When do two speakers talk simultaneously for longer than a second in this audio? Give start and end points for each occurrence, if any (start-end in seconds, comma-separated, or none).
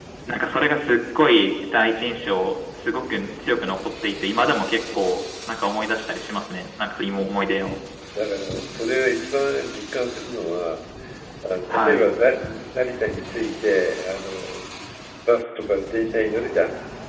none